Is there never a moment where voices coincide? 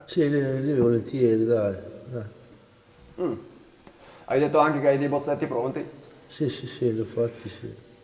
Yes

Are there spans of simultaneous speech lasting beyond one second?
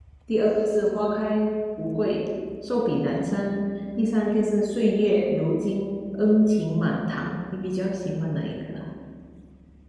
No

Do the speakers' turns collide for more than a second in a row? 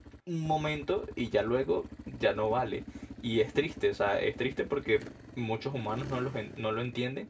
No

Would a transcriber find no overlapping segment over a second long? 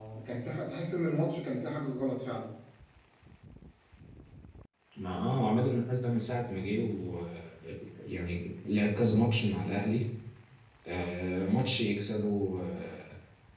Yes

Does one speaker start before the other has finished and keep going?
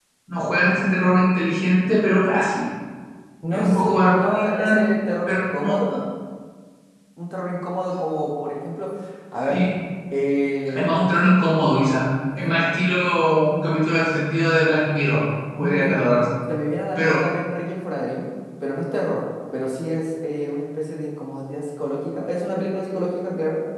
Yes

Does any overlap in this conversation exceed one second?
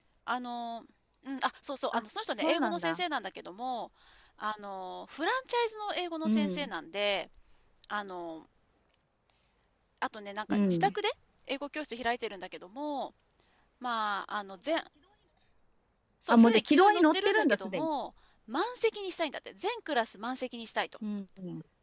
Yes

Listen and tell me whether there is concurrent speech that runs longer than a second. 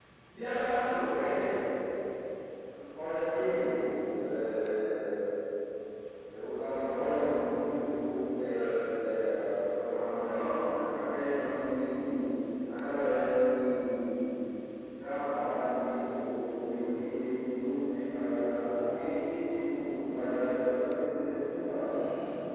No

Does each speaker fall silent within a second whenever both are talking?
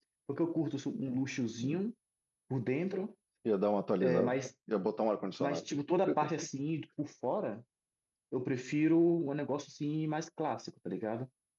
Yes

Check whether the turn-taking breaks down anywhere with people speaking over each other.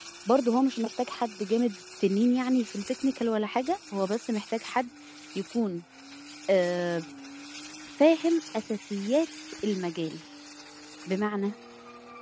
No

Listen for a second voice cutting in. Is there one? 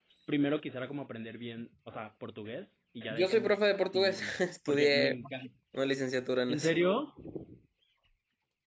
Yes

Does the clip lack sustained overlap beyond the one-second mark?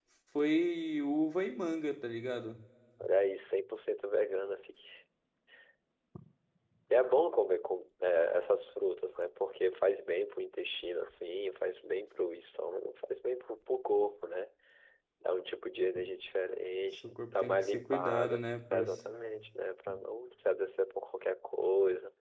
No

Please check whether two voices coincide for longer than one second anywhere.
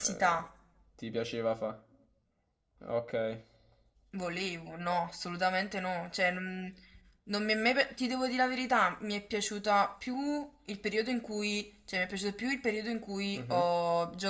No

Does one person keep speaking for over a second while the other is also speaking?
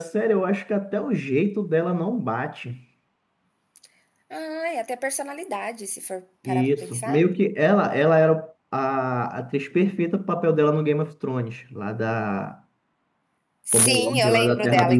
Yes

